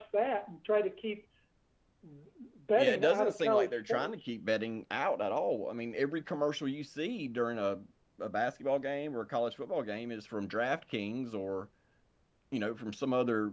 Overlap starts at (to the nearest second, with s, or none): 3 s